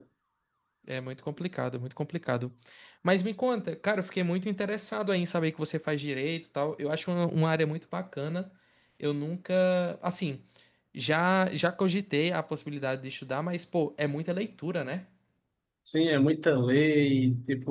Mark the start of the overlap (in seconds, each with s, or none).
none